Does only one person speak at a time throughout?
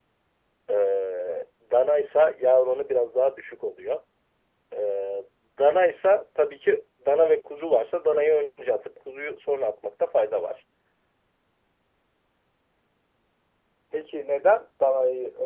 Yes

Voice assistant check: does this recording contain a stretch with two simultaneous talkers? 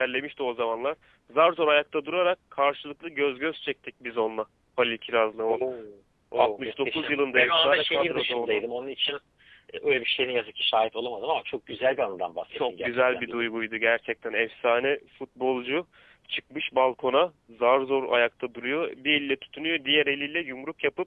Yes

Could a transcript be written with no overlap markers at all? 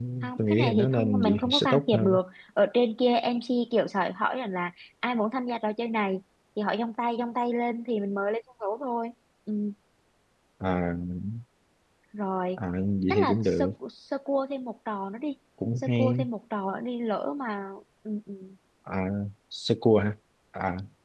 No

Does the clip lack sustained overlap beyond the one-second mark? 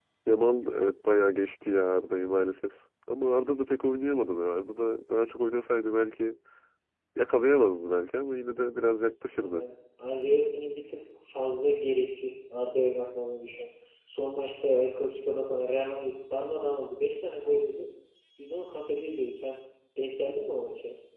Yes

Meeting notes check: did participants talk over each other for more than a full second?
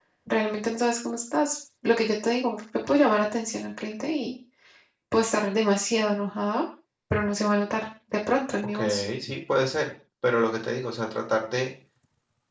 No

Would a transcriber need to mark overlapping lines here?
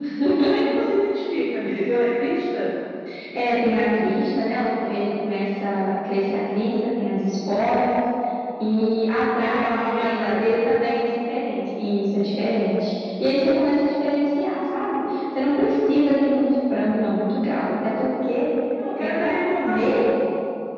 Yes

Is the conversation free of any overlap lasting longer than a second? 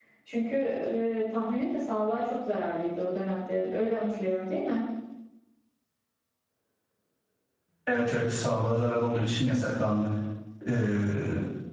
Yes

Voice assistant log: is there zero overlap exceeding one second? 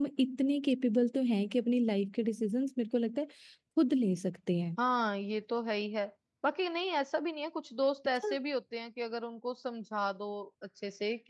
Yes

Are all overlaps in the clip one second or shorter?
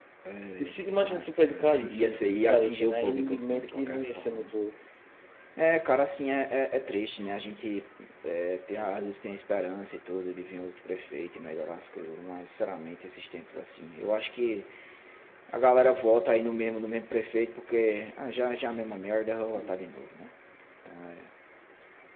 No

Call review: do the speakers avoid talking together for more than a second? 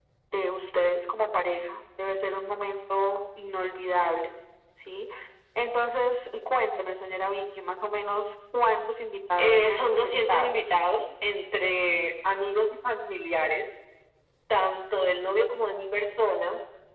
No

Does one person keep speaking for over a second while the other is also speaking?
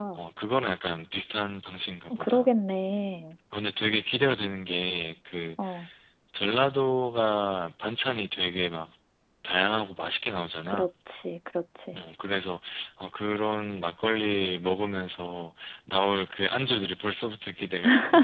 No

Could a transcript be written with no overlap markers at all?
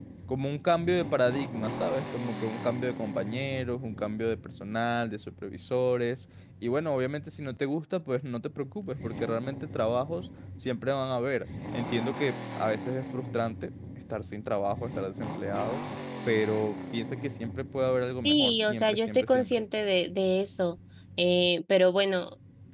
No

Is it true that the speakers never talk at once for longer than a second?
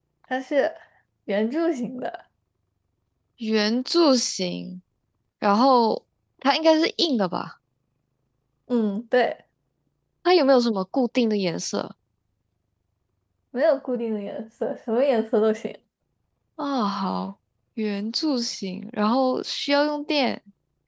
Yes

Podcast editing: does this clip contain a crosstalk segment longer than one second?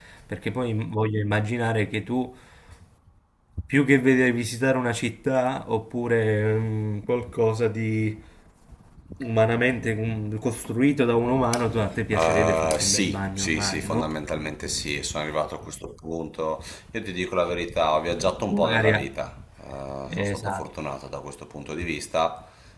Yes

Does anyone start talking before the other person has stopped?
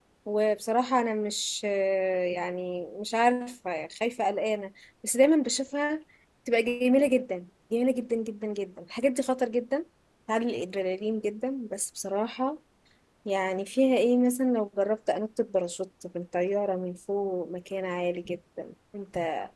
No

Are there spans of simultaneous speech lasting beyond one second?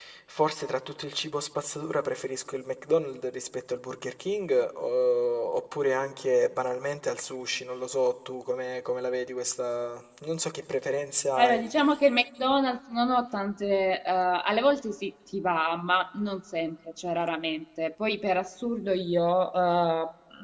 No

